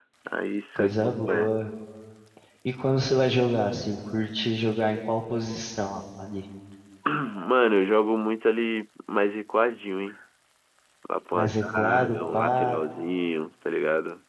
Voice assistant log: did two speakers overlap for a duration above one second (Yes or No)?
Yes